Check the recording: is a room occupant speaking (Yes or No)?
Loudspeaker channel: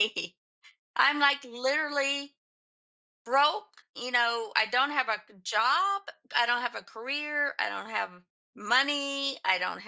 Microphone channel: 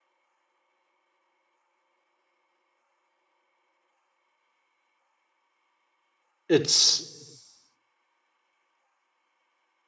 Yes